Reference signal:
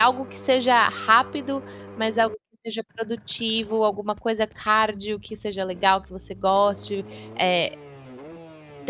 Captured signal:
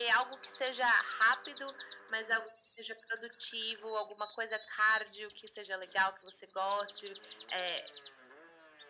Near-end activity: none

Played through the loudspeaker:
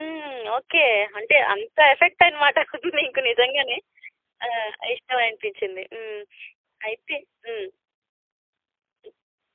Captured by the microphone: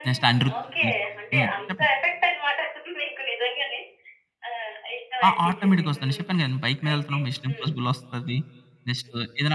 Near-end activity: present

